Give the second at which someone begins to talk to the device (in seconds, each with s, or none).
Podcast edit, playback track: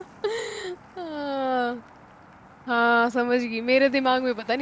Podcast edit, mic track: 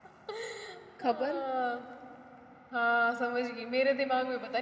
1.0 s